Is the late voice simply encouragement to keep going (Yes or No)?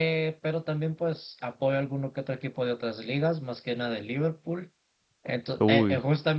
Yes